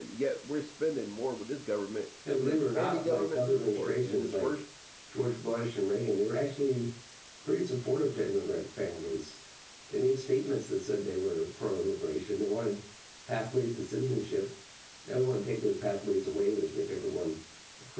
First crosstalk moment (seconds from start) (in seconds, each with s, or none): 2.2 s